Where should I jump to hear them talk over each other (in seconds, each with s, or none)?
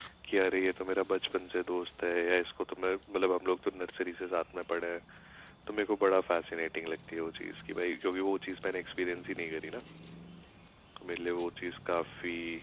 none